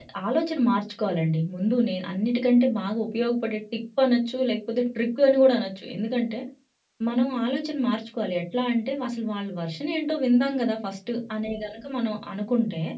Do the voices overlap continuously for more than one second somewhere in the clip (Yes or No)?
No